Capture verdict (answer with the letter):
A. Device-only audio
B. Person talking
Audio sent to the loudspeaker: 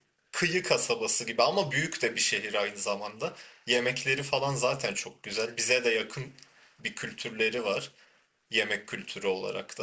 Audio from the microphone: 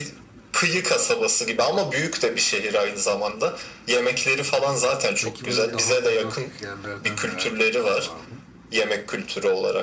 B